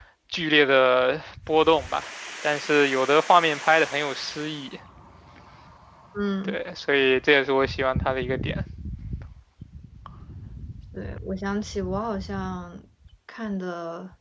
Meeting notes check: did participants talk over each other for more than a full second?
No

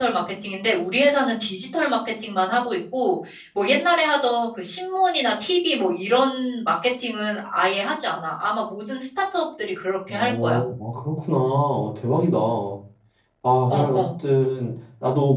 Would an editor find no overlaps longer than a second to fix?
Yes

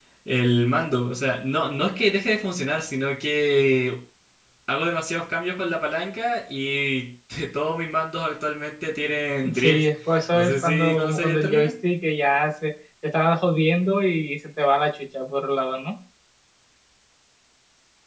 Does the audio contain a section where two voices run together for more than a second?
Yes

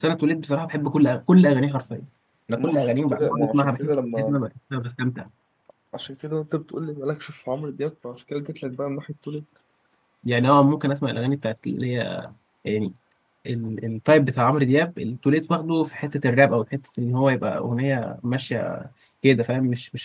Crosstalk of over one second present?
Yes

